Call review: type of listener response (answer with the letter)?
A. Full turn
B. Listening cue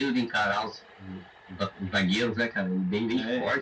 A